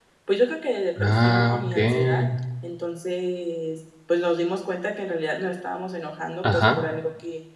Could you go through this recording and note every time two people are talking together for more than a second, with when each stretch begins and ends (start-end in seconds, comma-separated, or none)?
1.0-2.2